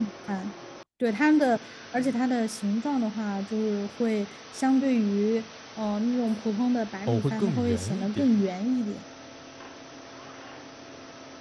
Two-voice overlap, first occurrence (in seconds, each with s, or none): 7.1 s